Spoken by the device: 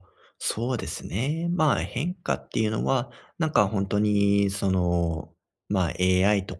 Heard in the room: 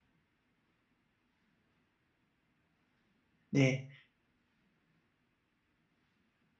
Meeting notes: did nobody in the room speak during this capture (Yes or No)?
No